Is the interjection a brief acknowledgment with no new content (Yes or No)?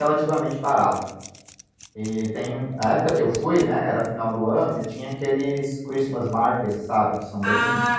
No